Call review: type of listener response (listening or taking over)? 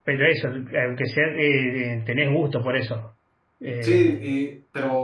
taking over